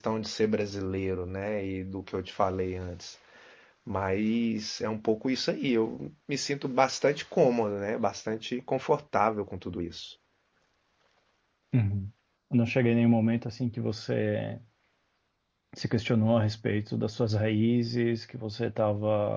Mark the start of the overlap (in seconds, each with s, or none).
none